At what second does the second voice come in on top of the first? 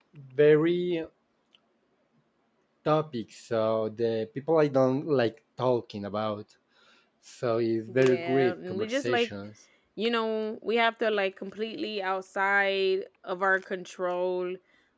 7.9 s

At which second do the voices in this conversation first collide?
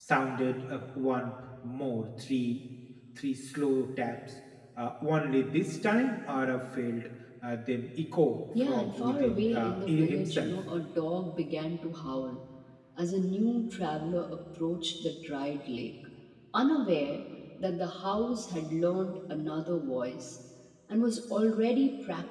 8.5 s

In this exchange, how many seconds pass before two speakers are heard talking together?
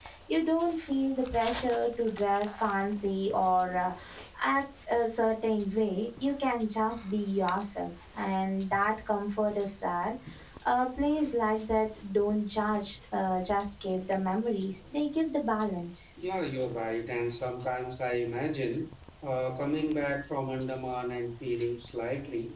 none

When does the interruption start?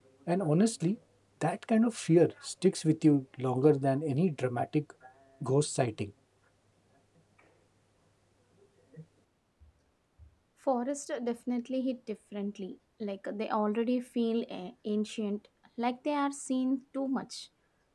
none

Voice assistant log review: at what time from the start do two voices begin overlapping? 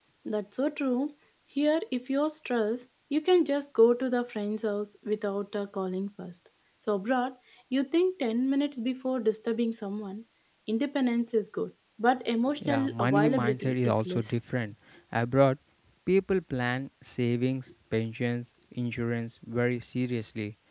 12.6 s

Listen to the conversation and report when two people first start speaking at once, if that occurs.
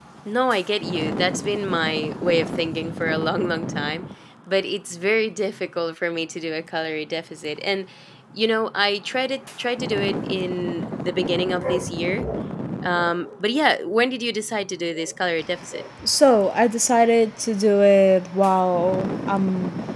none

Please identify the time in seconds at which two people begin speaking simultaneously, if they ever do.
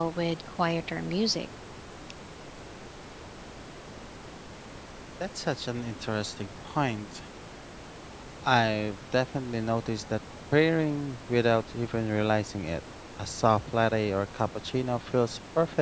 none

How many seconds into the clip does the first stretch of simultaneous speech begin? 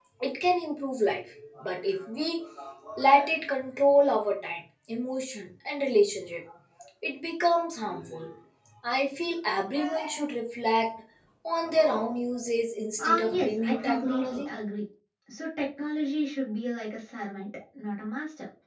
13.0 s

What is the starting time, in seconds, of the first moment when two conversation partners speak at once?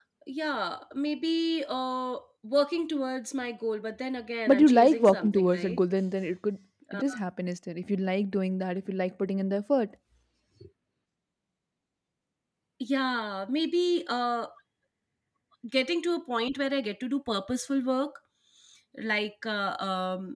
4.5 s

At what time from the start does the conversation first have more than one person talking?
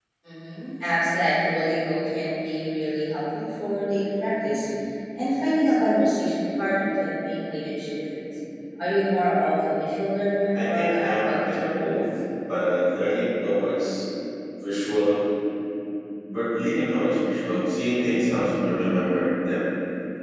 10.5 s

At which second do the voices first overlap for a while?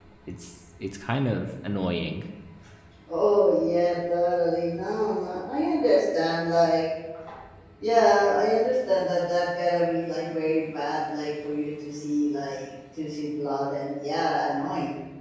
none

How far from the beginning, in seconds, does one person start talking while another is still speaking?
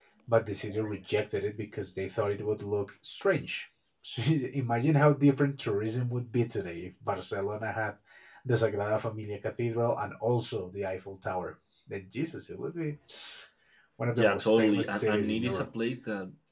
14.1 s

